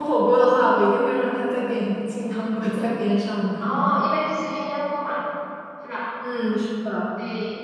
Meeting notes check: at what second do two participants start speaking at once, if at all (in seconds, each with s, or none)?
none